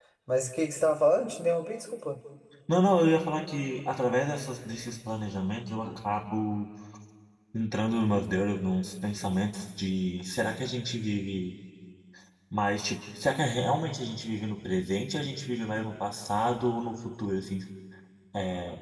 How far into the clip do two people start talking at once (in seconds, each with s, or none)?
none